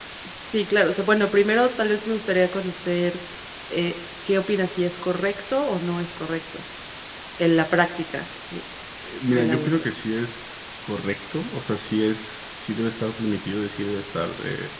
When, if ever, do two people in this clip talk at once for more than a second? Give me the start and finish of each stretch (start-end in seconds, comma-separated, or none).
none